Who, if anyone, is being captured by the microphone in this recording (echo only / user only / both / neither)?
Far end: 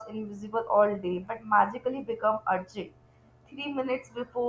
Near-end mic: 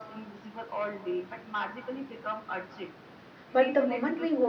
both